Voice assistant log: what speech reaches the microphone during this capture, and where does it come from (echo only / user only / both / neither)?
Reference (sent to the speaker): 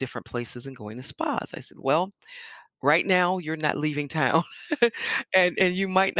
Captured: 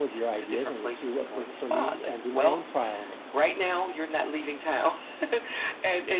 both